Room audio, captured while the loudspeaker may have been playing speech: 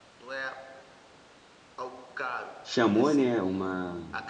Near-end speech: present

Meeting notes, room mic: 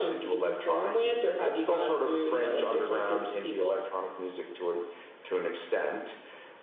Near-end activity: none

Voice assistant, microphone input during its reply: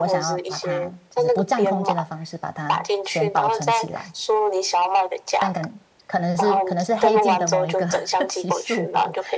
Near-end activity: present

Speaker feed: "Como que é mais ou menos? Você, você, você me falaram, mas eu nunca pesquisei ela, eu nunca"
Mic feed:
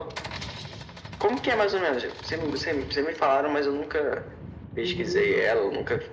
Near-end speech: present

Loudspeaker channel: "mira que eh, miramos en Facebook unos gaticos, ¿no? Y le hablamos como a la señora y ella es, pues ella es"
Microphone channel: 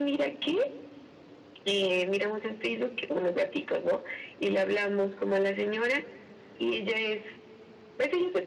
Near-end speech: none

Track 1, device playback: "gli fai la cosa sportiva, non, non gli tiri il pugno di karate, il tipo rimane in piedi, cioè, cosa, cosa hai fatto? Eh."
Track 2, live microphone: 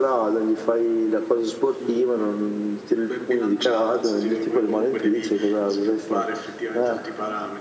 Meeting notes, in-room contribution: present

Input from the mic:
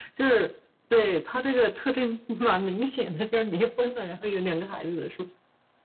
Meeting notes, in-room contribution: none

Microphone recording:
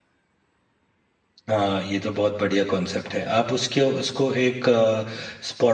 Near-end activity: present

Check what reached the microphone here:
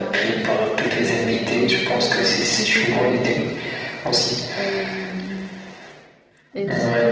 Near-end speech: present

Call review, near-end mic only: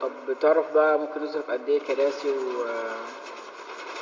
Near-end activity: none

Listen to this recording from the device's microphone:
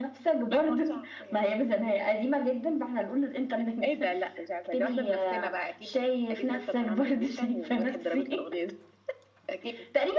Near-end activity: none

